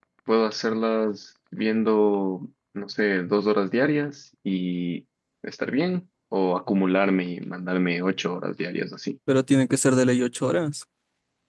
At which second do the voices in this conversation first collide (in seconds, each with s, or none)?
none